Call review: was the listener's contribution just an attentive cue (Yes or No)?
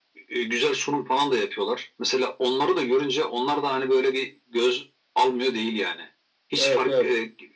Yes